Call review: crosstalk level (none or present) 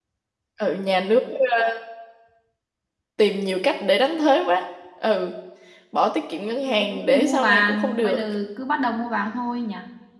present